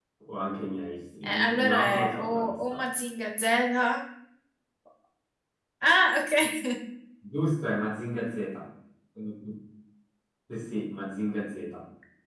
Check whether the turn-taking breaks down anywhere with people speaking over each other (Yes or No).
Yes